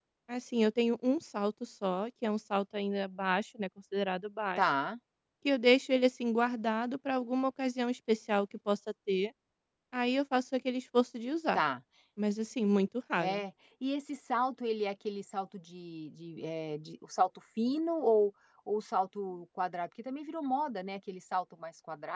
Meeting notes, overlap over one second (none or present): none